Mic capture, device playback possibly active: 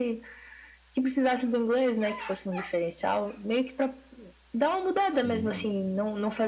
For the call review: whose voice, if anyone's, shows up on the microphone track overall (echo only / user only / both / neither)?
both